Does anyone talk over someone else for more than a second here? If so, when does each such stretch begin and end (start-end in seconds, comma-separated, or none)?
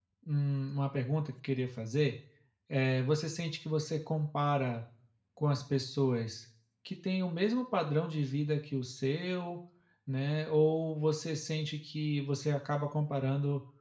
none